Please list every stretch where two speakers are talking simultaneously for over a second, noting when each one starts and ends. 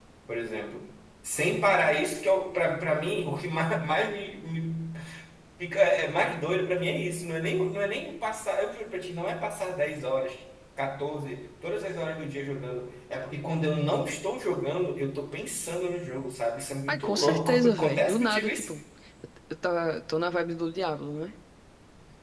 16.9-18.7

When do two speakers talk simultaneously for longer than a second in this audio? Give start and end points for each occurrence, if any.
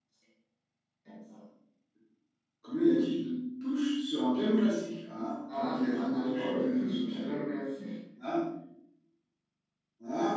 5.5-7.4

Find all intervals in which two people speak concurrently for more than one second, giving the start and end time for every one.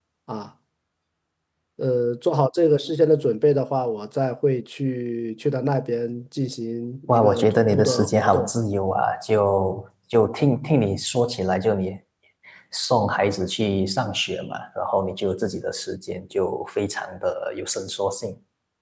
7.1-8.5

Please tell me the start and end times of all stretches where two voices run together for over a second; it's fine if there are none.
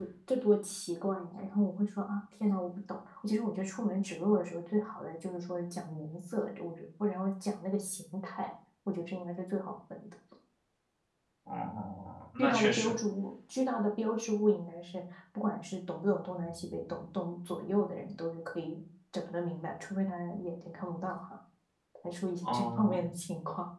none

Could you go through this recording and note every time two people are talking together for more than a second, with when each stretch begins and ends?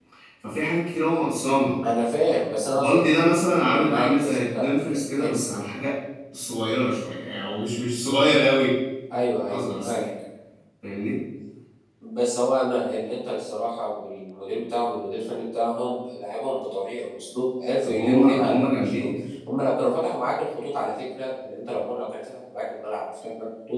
3.6-5.3, 17.9-19.1

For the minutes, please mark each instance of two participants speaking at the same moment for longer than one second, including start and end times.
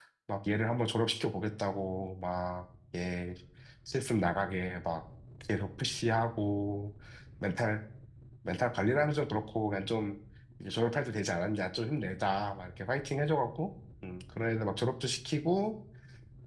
none

